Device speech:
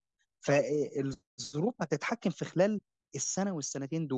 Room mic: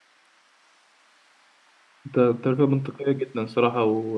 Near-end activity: present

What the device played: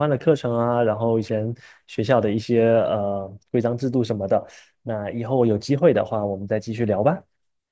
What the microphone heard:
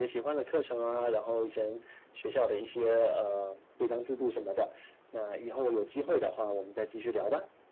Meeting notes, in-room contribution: none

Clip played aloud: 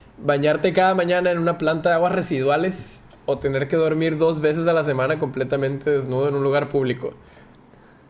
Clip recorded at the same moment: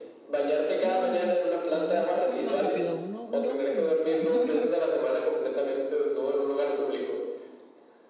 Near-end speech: present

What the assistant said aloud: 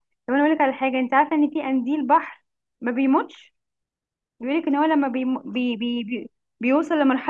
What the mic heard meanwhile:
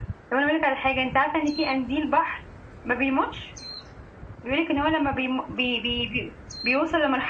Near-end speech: none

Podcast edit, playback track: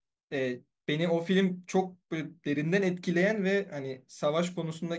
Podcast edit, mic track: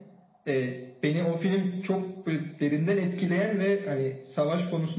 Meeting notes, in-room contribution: none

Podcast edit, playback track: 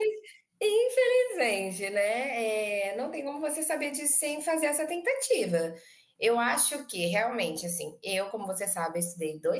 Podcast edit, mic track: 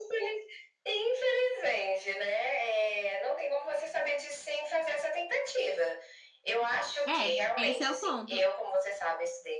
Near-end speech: present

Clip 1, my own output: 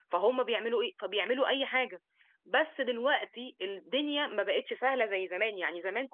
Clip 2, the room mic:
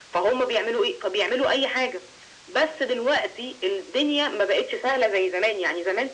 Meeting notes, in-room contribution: none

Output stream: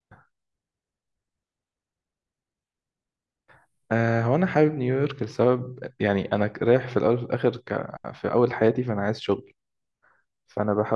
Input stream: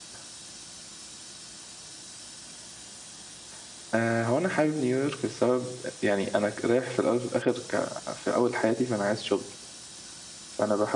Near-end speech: none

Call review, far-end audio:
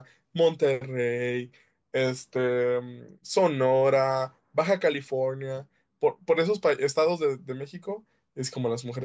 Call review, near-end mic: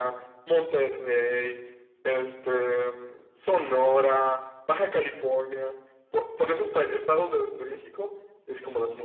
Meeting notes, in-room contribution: none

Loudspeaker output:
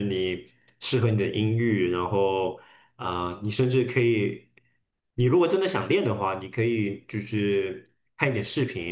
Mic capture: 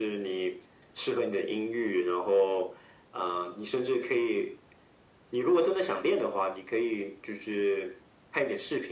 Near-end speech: none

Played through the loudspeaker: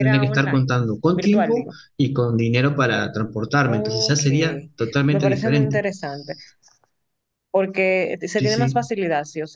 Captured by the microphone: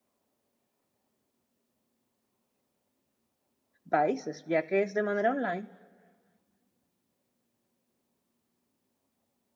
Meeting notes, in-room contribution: present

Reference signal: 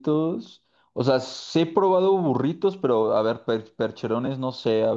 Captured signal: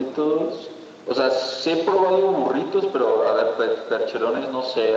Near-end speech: none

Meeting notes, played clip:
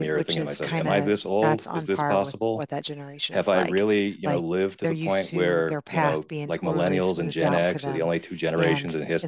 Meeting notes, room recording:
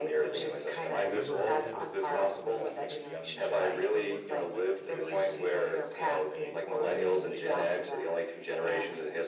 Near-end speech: present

